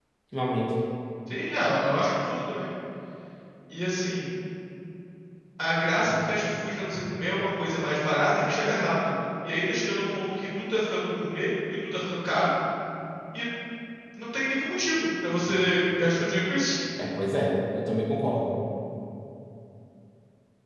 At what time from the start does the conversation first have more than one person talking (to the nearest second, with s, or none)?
none